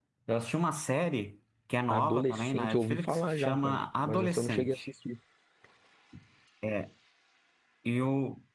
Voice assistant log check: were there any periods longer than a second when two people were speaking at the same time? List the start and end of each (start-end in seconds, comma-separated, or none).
1.9-4.9